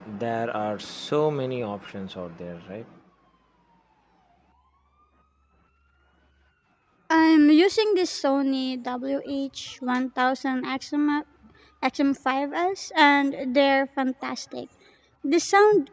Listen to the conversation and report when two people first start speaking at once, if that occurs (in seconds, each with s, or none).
none